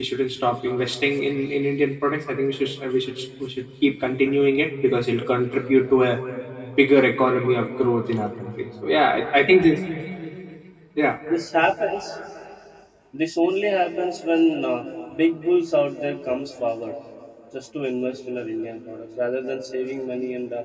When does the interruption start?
none

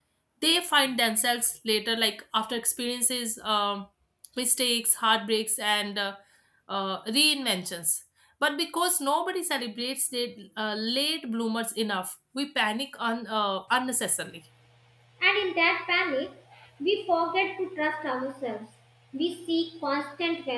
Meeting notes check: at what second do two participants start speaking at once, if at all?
none

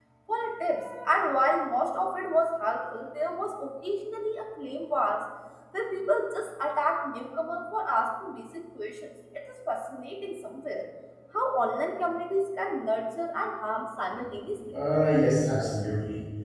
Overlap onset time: none

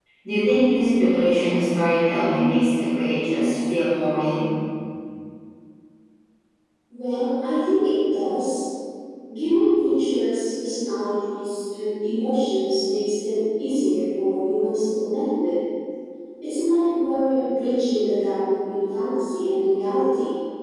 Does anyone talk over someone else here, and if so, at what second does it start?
none

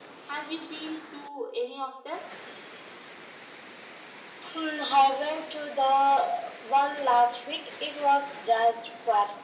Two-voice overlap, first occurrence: none

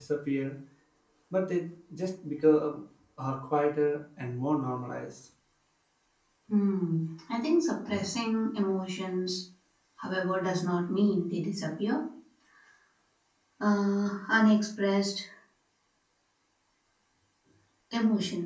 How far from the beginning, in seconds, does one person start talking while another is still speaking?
none

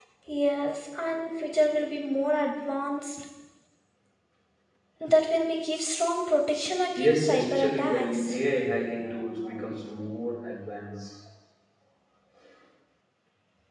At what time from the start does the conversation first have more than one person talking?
7.0 s

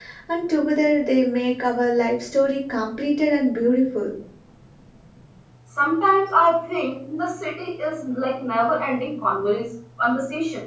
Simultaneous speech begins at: none

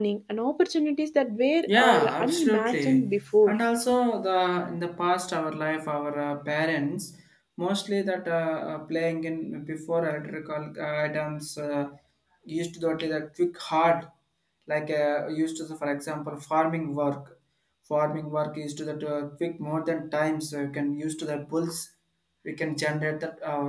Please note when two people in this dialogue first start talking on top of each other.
1.7 s

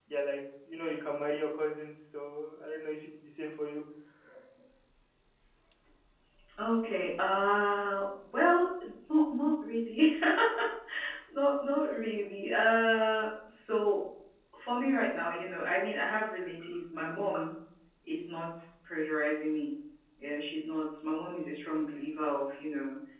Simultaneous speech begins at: none

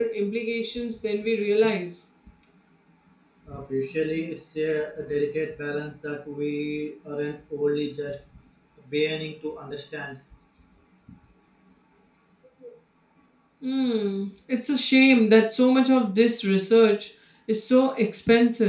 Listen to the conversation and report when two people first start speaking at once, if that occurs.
none

